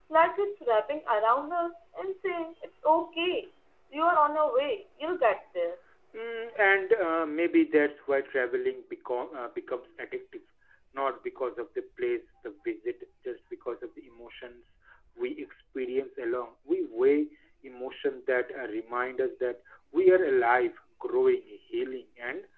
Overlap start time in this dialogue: none

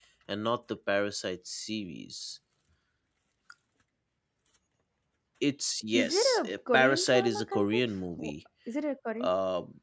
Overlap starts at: 5.9 s

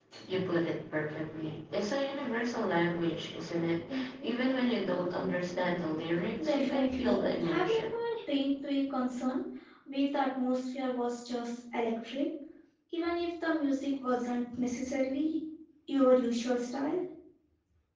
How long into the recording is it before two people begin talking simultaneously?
6.4 s

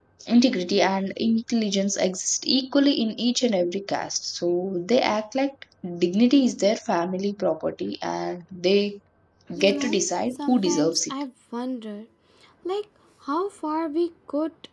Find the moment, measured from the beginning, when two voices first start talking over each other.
9.6 s

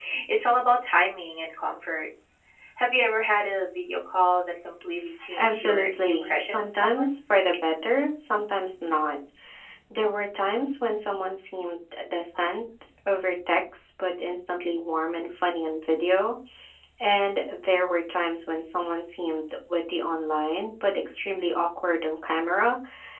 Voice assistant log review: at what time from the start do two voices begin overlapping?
5.2 s

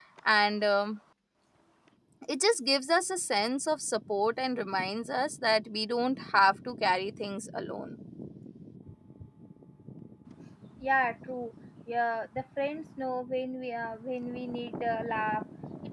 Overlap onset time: none

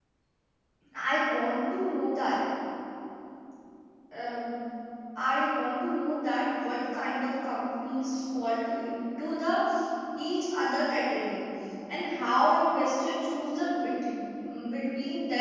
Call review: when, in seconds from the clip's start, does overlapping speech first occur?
none

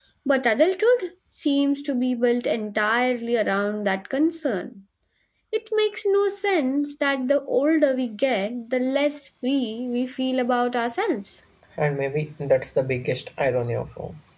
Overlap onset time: none

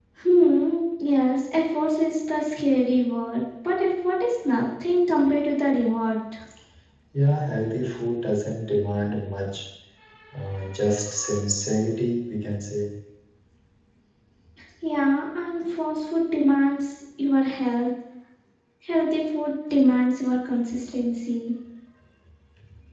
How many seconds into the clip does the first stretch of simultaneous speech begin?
none

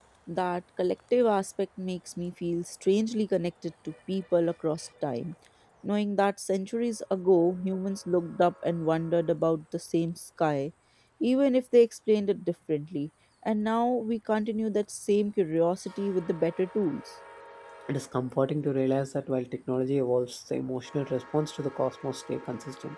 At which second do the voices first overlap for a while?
none

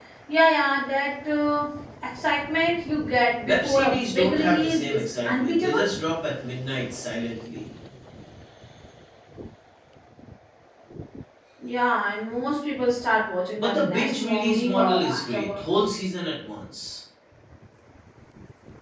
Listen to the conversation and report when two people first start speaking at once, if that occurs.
3.4 s

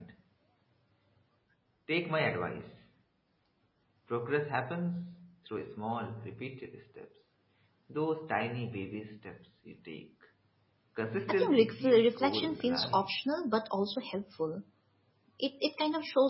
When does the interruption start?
11.3 s

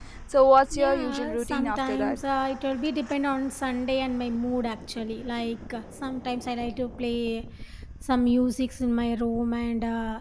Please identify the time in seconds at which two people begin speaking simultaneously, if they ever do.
0.7 s

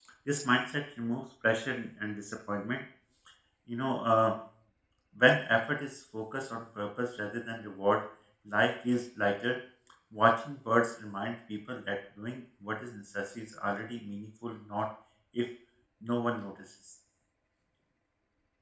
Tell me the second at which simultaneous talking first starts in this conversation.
none

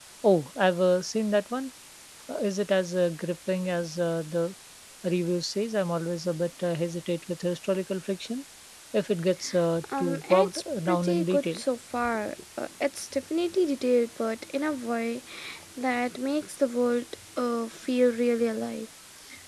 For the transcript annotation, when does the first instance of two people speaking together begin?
9.9 s

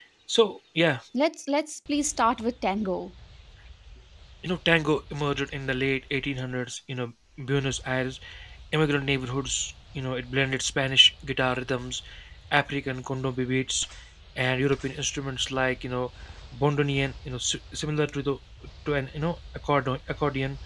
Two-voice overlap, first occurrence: none

